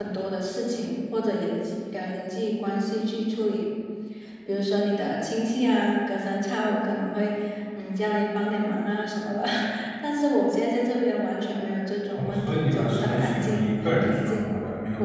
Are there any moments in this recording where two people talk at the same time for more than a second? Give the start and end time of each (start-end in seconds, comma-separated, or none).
12.2-14.5